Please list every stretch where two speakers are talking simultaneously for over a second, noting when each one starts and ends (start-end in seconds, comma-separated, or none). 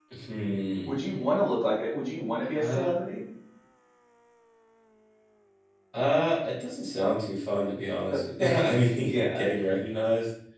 8.1-9.5